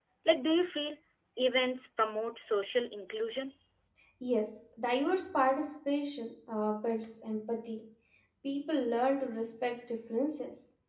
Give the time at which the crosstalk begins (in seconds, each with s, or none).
none